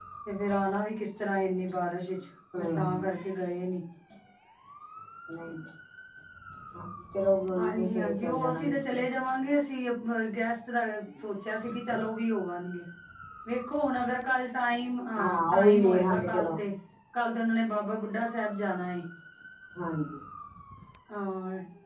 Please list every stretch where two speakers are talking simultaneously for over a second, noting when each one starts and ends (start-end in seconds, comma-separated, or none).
7.6-8.9, 15.2-16.5